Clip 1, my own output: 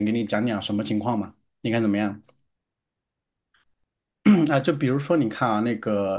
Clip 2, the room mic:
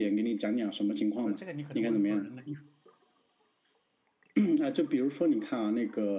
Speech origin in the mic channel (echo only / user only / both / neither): both